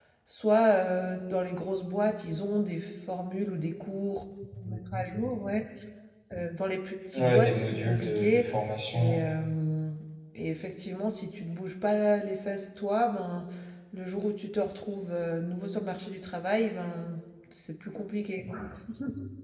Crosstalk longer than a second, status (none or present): present